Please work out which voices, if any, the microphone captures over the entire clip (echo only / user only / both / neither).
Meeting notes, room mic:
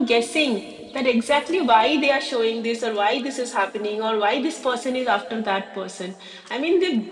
echo only